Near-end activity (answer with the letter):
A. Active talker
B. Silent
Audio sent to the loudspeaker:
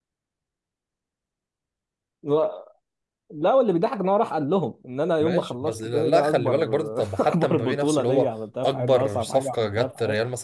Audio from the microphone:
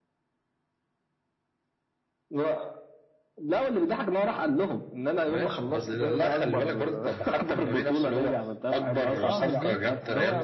A